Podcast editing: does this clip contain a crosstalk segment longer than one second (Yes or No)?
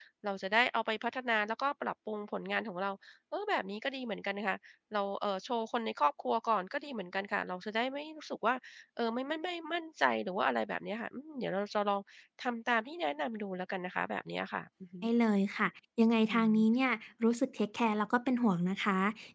No